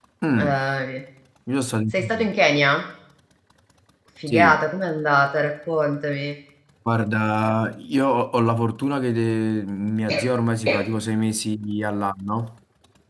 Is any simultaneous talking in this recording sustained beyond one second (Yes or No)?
No